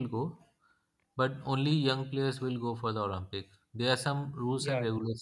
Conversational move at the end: listening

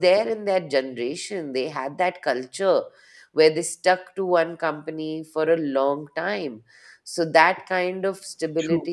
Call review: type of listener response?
listening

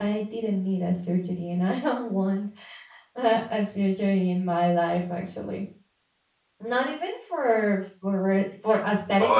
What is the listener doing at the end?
listening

